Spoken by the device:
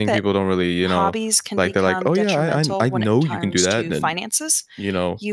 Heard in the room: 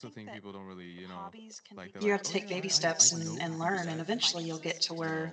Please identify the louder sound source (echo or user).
user